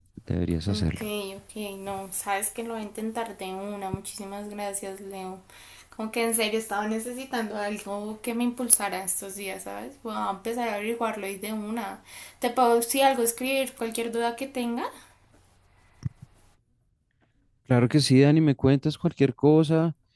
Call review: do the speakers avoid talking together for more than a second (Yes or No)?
Yes